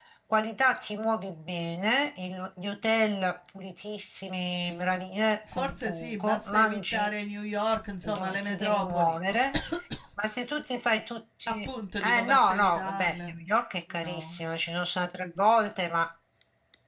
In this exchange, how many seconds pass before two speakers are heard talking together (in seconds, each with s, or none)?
5.5 s